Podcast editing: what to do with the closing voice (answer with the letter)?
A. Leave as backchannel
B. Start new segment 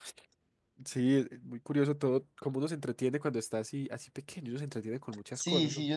B